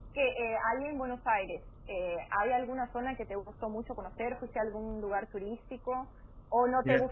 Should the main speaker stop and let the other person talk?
No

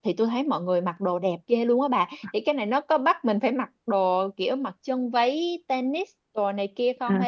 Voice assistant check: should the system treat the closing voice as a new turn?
Yes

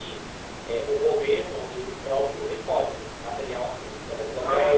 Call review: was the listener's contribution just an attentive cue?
Yes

